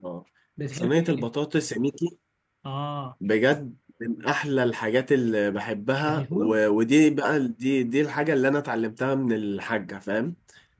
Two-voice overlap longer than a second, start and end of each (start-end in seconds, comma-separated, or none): none